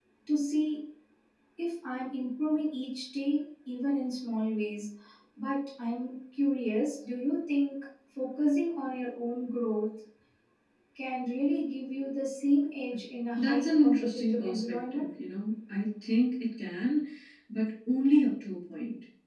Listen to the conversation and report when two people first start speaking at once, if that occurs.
13 s

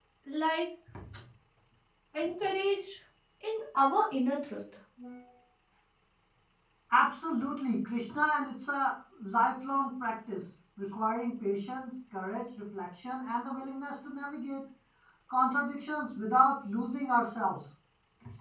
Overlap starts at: none

